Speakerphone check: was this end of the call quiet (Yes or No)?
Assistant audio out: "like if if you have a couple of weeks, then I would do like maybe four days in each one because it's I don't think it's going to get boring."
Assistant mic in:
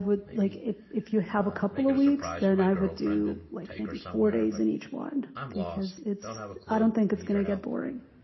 No